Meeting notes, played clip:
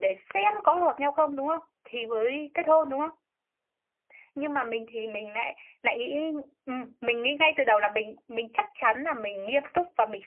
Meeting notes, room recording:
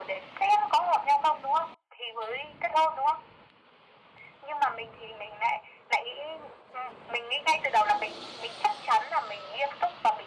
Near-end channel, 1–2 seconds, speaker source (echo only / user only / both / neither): echo only